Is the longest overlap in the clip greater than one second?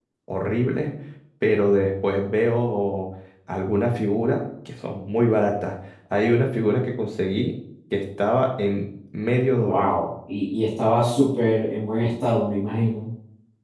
No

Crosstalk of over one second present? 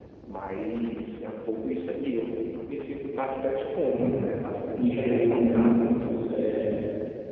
Yes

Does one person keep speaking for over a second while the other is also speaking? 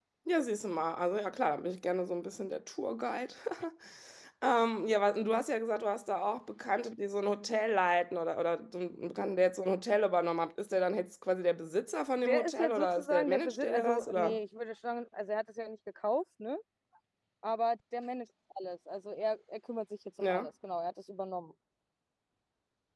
Yes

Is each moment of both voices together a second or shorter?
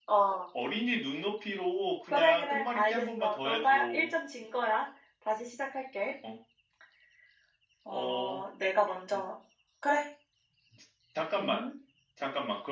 No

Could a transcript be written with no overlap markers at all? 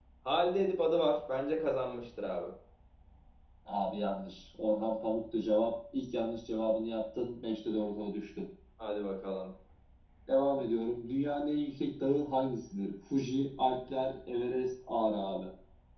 Yes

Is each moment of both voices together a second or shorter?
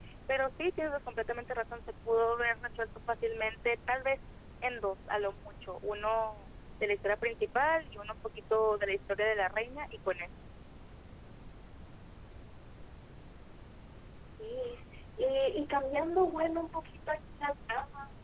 Yes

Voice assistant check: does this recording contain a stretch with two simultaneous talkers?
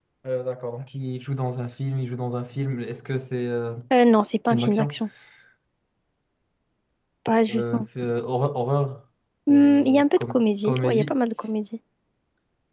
Yes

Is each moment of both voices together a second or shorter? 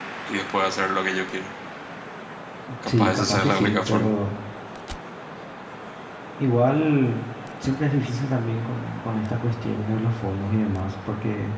No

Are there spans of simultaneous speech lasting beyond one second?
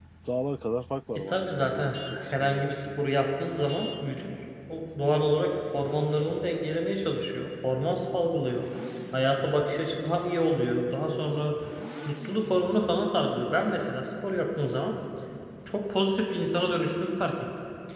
Yes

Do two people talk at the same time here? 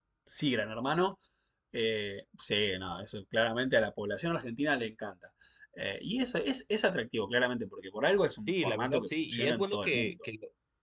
Yes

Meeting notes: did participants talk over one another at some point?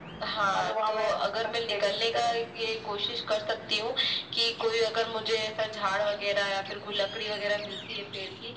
Yes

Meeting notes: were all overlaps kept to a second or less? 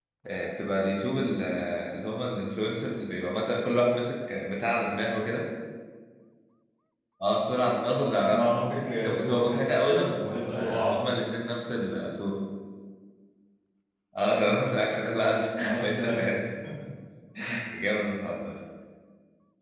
No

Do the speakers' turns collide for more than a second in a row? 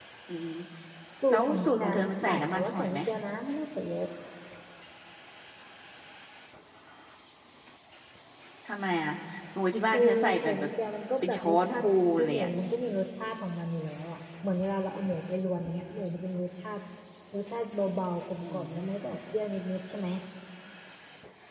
Yes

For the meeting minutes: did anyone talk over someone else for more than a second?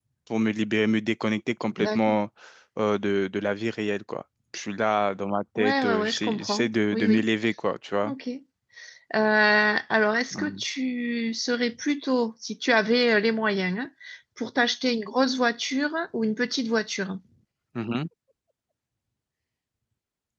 Yes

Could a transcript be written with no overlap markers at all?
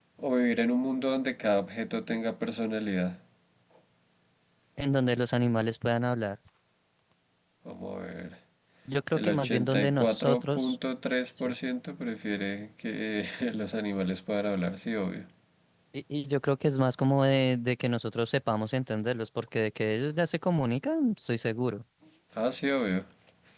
No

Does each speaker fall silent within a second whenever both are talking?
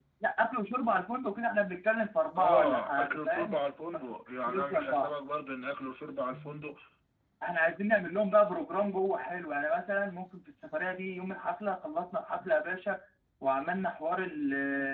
No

